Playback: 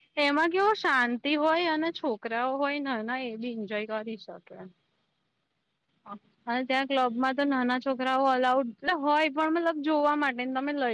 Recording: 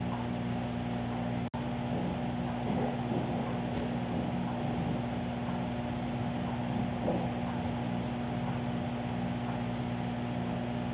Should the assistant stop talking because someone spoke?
No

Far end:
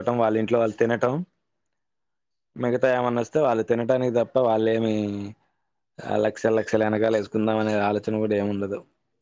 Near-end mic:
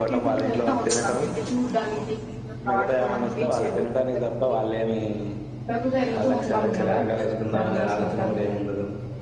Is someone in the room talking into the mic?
Yes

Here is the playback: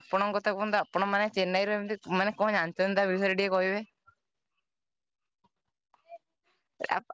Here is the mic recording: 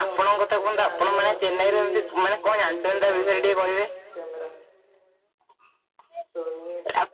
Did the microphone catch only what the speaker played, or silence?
No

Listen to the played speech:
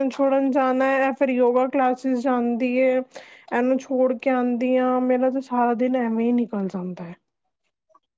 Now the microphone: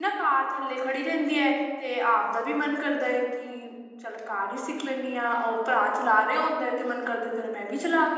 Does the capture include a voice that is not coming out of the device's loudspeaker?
Yes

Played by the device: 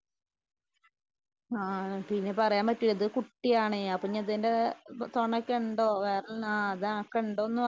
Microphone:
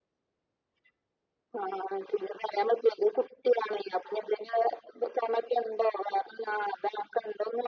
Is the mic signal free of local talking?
Yes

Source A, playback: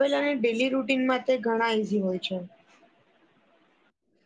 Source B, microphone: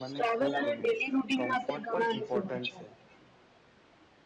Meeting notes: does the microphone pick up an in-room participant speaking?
Yes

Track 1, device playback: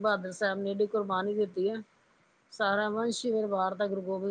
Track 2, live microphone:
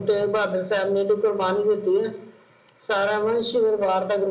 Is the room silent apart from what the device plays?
Yes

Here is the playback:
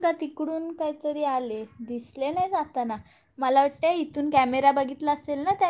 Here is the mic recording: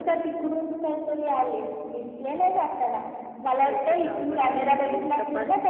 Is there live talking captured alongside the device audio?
Yes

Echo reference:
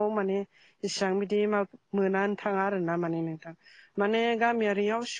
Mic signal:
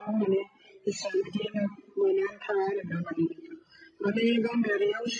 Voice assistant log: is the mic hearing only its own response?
Yes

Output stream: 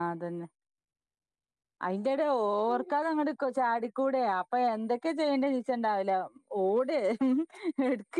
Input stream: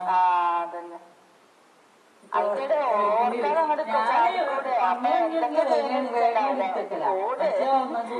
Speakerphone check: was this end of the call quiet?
No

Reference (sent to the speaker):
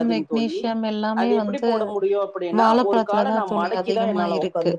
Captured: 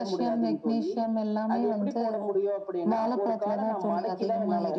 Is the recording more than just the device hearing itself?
No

